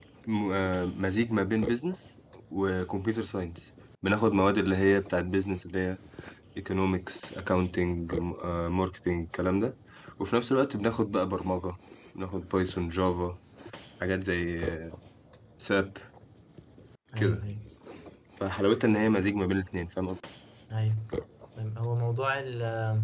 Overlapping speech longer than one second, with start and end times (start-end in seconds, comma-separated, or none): none